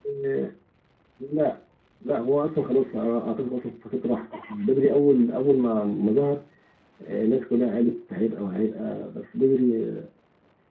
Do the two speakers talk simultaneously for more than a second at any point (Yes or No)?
No